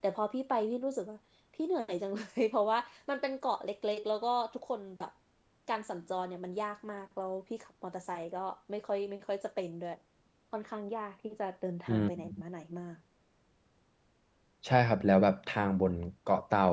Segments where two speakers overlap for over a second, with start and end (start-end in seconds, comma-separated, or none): none